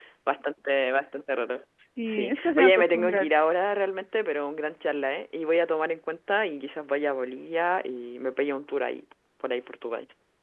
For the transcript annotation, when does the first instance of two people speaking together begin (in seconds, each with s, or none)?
2.0 s